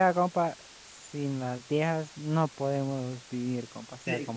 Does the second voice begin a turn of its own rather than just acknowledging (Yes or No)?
Yes